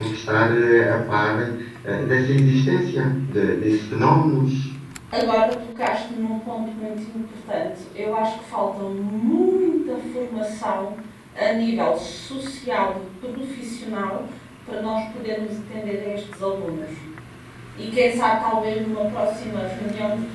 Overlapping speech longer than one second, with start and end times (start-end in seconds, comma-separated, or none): none